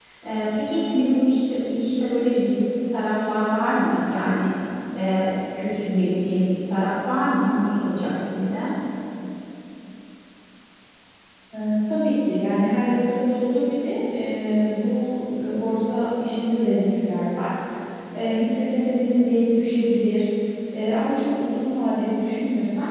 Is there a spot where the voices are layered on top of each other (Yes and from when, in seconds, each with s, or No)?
No